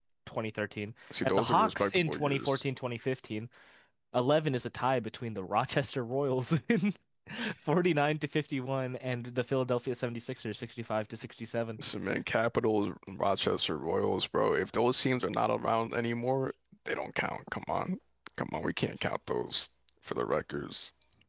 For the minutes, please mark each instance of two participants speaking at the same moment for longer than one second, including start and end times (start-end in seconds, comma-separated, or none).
1.2-2.6